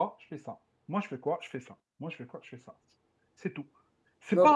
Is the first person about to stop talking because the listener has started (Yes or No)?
No